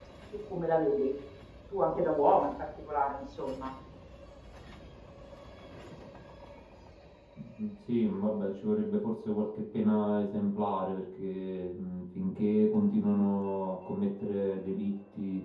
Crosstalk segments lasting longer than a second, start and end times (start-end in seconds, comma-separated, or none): none